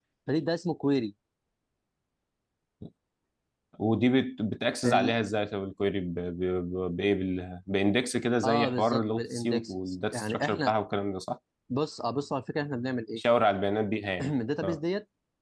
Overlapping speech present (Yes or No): Yes